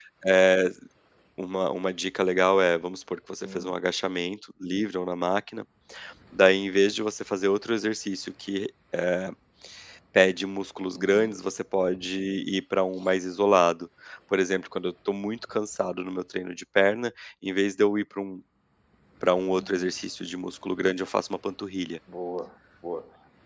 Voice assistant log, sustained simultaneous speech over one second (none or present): none